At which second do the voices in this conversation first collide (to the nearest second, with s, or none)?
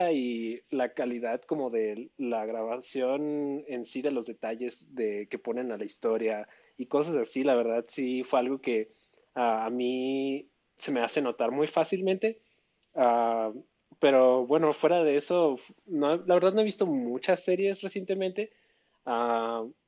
none